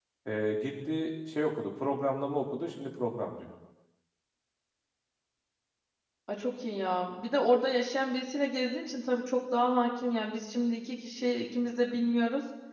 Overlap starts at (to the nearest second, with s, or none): none